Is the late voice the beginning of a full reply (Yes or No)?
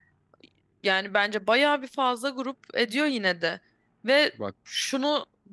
No